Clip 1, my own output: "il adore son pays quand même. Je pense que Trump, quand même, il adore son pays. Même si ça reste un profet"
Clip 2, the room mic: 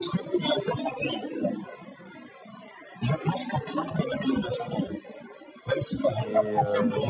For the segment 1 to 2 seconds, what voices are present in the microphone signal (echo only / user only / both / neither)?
echo only